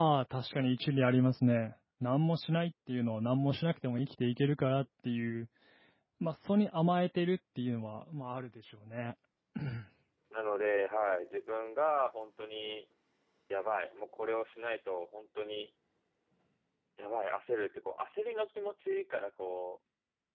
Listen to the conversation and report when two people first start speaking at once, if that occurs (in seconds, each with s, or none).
none